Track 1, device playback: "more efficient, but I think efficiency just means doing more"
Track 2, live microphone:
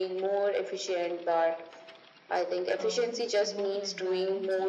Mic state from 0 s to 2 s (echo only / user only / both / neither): echo only